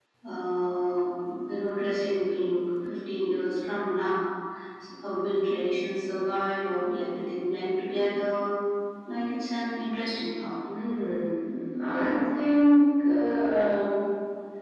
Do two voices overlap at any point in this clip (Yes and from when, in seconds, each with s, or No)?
No